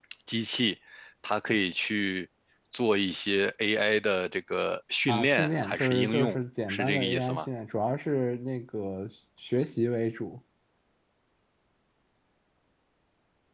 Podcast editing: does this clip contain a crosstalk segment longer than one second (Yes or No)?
Yes